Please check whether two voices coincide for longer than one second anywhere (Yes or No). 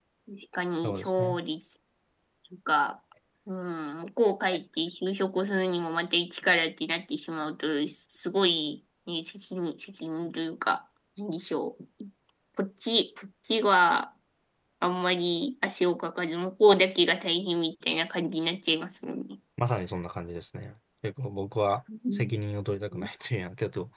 No